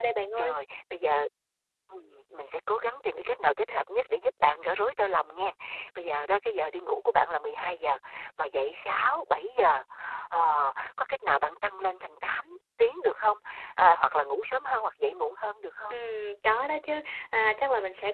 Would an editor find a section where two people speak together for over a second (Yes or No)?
No